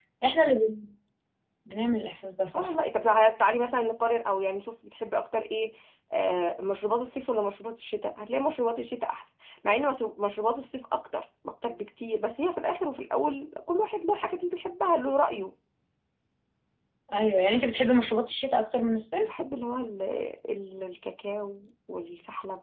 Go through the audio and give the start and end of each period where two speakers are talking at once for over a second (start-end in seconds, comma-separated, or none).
none